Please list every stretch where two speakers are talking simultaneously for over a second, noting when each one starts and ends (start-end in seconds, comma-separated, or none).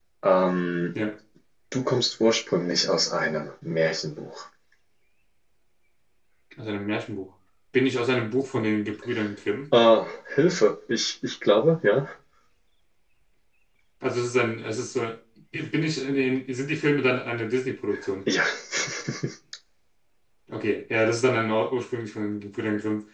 none